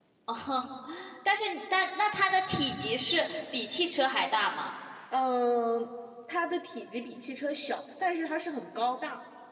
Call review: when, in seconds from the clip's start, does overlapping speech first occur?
none

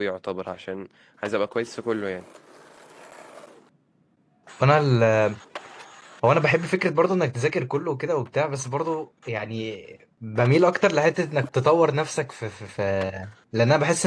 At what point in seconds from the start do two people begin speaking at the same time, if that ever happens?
none

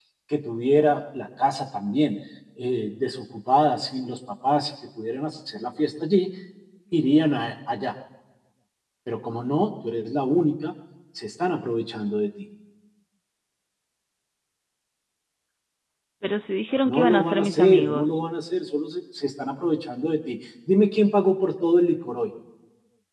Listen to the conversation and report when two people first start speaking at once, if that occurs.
17 s

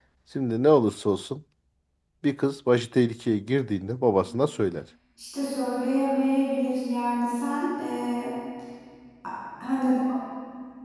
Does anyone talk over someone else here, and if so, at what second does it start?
none

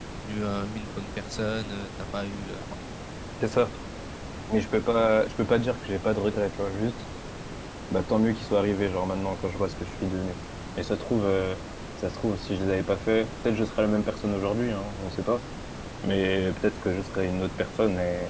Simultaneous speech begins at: none

